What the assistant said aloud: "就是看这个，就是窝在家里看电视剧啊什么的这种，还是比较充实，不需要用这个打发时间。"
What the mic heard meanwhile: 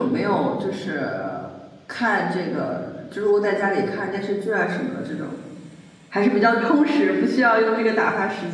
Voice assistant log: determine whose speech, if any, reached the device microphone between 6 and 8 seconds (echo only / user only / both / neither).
echo only